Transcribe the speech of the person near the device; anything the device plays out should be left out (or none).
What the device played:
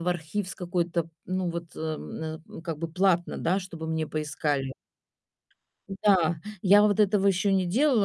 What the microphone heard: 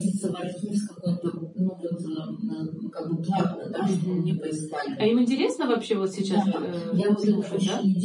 Мгм. А им интересно вообще вот сейчас, э, слушать, да?